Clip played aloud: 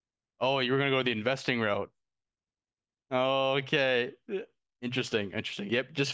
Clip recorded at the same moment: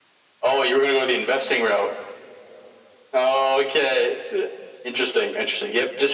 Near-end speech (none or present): none